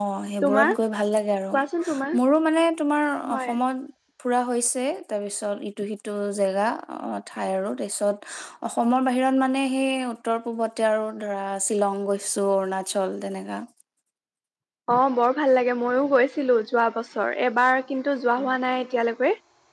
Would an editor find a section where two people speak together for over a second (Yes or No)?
No